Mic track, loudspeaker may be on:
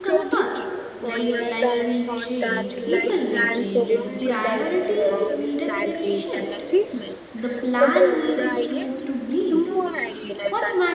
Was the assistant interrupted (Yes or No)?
Yes